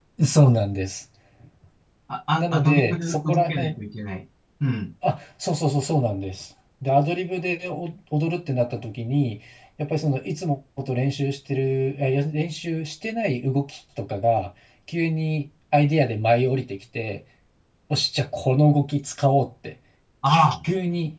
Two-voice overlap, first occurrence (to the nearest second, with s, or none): 2 s